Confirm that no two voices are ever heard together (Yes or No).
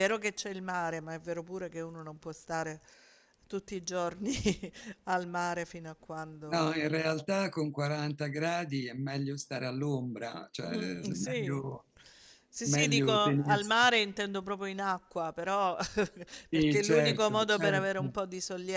No